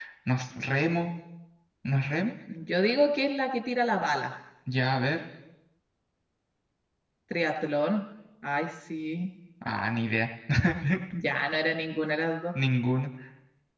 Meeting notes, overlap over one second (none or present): none